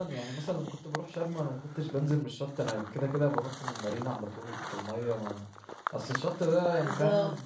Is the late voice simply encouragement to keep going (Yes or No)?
Yes